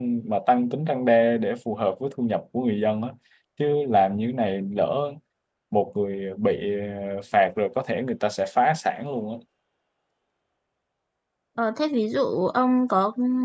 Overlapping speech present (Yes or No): No